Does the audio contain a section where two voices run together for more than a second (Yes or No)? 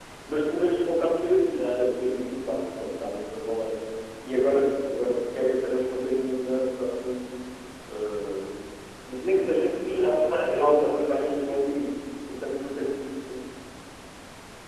Yes